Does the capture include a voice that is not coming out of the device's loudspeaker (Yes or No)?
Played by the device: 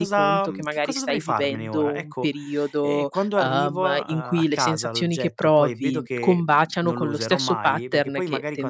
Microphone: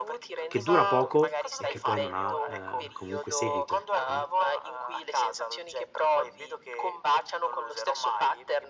Yes